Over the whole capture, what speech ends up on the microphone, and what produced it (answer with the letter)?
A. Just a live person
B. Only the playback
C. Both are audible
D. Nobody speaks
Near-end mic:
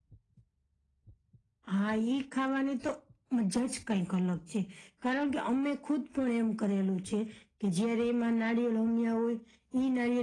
B